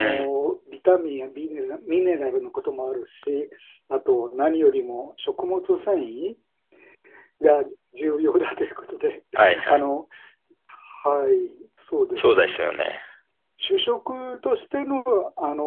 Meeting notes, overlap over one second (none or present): none